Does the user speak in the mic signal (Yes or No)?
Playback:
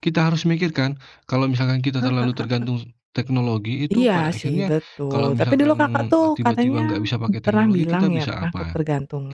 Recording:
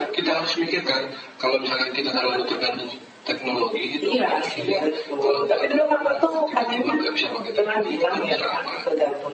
Yes